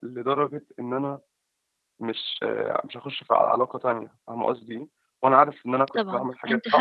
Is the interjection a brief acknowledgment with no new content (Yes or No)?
No